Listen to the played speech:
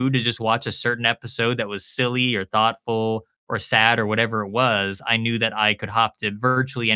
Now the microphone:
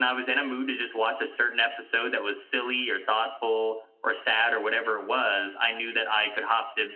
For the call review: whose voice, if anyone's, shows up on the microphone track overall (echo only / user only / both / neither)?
echo only